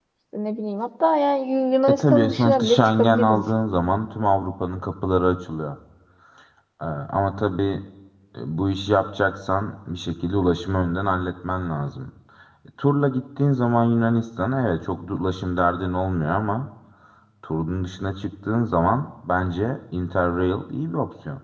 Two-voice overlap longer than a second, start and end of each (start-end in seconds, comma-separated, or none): 1.9-3.4